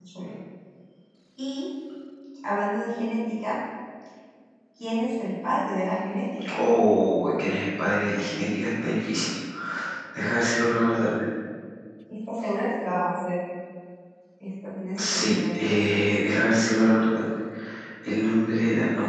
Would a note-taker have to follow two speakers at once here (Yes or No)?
Yes